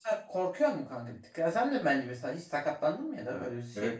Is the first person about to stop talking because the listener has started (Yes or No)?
Yes